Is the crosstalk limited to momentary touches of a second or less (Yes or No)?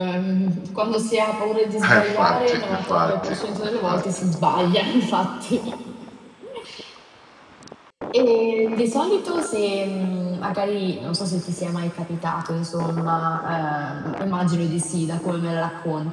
No